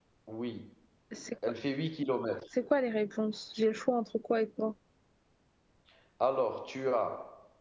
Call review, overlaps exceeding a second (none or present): none